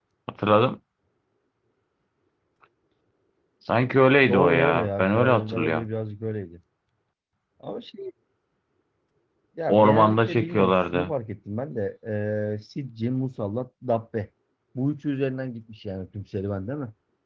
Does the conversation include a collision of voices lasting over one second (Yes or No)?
Yes